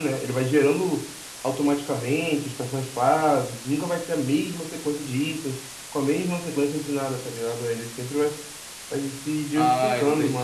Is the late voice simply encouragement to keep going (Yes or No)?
No